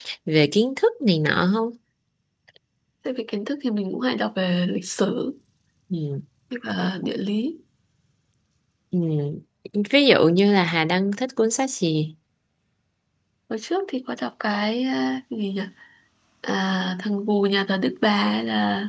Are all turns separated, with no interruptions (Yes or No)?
Yes